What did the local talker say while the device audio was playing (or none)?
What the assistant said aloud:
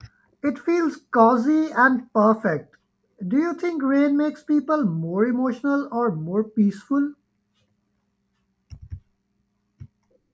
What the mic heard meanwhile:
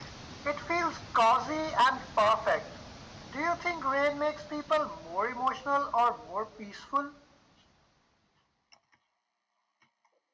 none